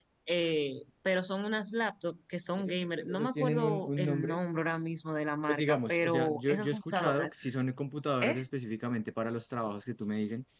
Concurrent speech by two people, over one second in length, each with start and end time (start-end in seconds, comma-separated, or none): 2.6-4.4, 5.5-7.3